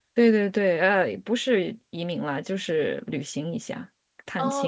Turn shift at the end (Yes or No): Yes